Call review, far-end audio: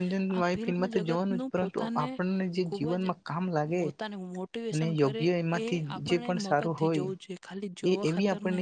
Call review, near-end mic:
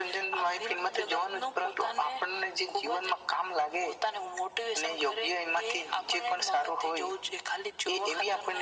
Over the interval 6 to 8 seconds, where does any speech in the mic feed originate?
echo only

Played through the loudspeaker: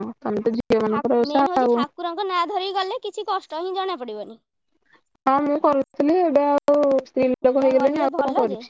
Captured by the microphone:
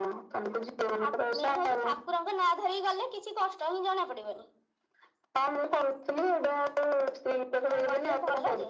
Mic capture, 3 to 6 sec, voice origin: echo only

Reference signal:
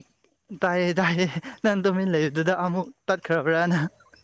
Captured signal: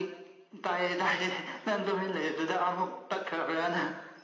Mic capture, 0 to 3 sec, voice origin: echo only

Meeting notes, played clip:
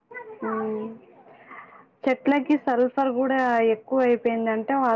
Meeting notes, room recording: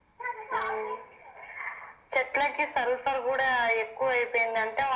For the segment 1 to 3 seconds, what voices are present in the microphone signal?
echo only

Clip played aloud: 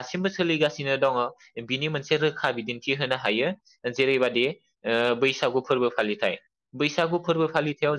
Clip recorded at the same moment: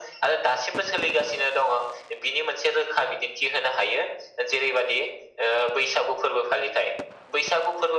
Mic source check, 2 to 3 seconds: echo only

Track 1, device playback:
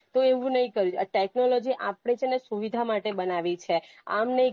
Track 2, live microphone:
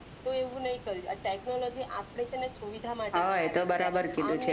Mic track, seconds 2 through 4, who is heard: both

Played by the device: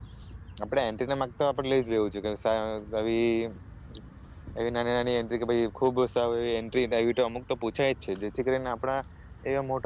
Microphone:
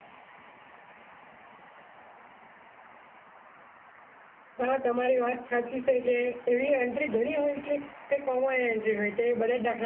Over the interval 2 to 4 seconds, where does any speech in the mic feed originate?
neither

